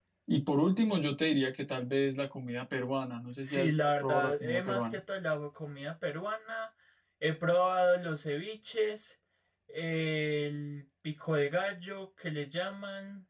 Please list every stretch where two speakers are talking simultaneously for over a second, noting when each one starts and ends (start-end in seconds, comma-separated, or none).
3.4-5.0